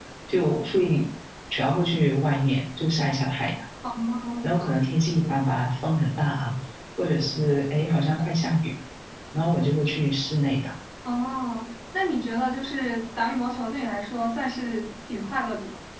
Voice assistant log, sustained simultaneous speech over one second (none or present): none